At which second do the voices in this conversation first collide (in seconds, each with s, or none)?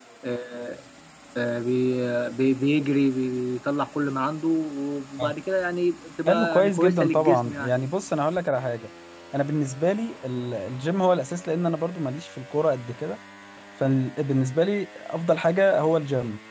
6.3 s